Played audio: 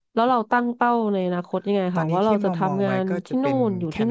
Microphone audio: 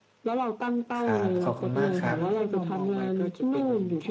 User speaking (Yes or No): Yes